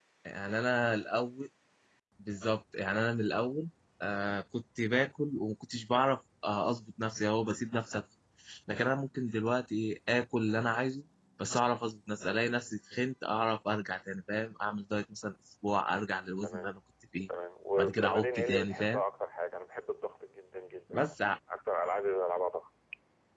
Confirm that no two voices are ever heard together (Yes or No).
No